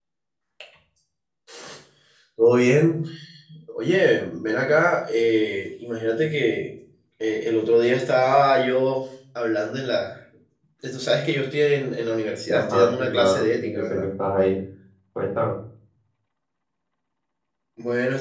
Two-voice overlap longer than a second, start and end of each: 12.5-14.1

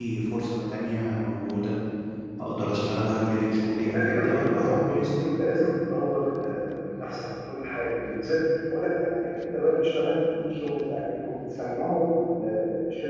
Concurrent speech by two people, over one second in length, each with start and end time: 3.9-5.1

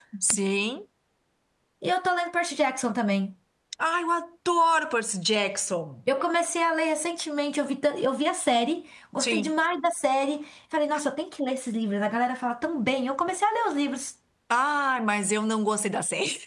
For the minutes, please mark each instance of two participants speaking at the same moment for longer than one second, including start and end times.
none

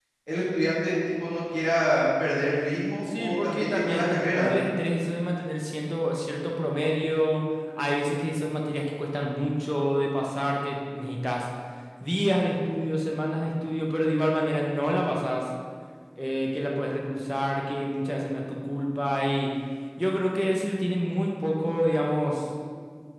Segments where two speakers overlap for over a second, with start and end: 3.0-4.6

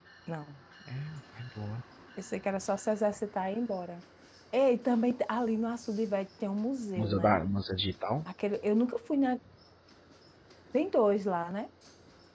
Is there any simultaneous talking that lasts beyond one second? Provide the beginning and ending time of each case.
none

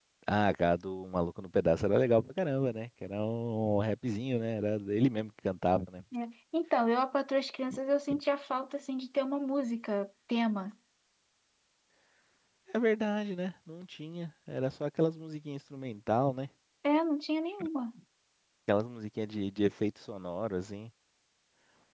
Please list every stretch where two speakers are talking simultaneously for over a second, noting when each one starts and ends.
none

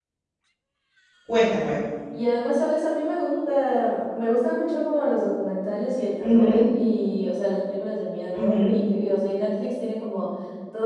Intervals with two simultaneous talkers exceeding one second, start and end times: none

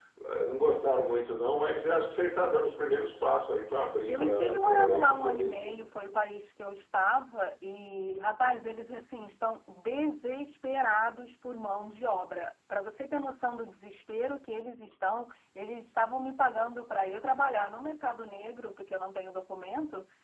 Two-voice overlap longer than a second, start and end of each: 4.1-5.8

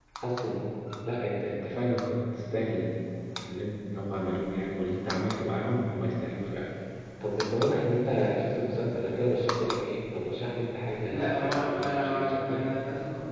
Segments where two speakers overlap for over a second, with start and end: 11.1-12.7

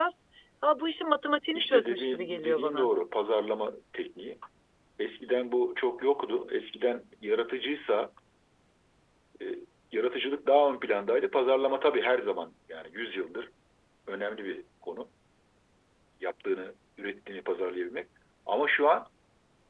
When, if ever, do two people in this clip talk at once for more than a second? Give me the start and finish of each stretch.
1.5-2.9

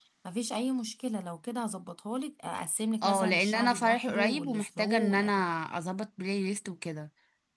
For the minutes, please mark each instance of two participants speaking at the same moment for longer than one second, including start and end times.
3.0-5.3

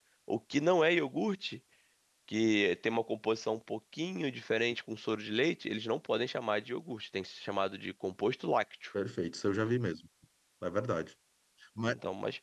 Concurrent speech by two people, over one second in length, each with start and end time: none

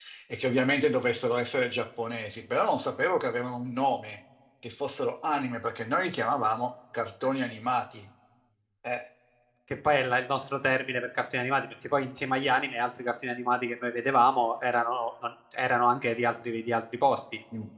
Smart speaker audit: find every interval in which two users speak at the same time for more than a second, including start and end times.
none

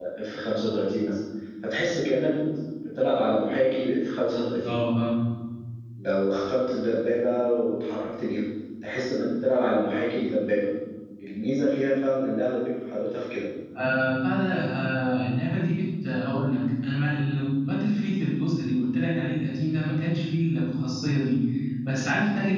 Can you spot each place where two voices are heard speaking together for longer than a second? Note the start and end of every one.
none

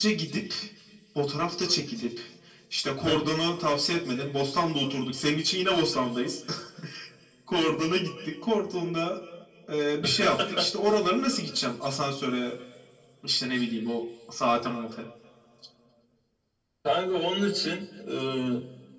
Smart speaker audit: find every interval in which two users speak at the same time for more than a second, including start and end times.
none

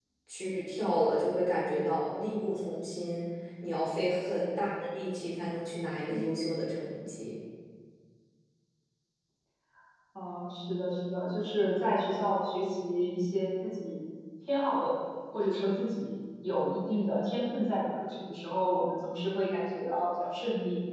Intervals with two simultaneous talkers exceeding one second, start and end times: none

